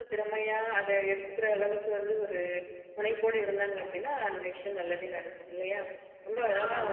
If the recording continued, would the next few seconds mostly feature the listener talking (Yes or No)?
No